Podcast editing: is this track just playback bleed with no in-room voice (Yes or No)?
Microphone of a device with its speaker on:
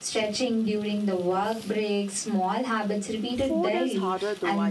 No